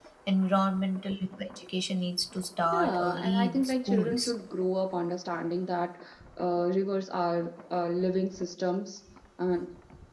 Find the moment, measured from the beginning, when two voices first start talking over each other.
2.6 s

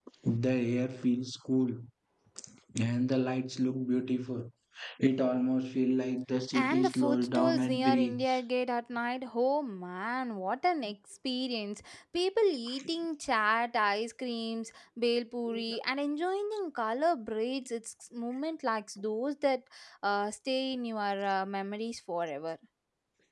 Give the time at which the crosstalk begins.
6.5 s

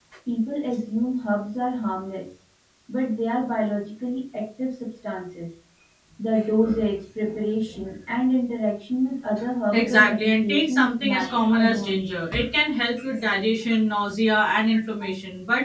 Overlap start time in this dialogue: 9.7 s

